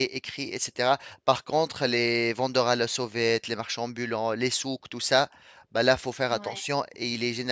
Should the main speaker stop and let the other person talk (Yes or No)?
No